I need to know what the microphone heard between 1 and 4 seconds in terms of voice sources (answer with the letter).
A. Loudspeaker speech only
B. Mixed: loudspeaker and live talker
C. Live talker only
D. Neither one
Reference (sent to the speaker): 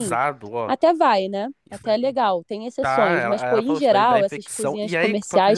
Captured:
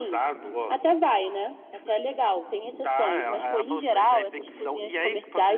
A